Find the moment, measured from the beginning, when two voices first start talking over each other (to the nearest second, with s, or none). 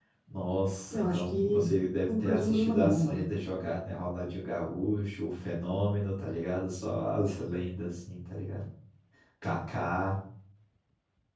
1 s